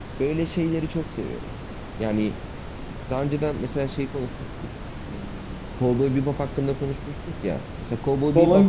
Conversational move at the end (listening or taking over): taking over